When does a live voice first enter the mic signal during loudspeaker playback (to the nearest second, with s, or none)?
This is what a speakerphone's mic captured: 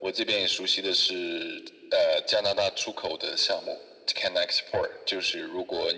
none